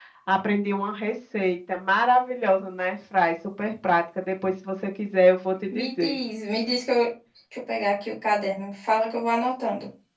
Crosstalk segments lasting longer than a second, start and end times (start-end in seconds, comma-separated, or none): none